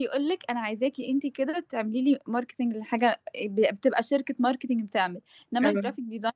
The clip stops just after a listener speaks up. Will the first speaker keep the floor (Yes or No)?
Yes